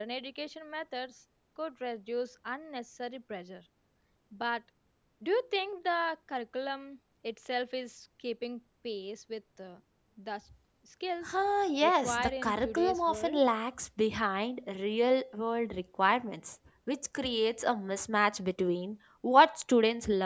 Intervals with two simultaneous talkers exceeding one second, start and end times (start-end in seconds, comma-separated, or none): 11.8-13.4